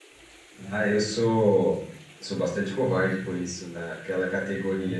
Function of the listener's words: listening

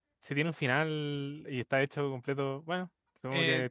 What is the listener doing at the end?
taking over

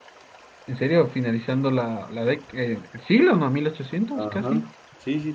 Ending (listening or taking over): taking over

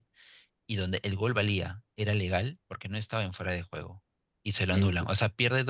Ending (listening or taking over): listening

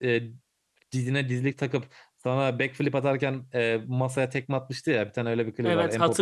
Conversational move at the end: taking over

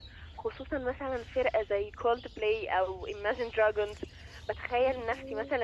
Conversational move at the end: listening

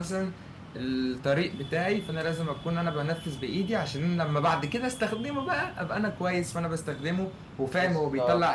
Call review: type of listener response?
listening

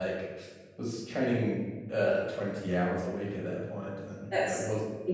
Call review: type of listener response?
taking over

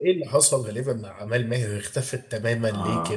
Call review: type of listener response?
taking over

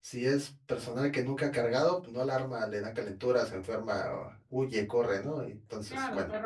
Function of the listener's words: taking over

